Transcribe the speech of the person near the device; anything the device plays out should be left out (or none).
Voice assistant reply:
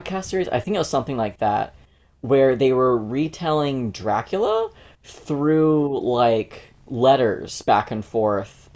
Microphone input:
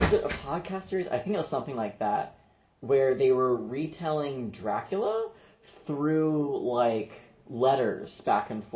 none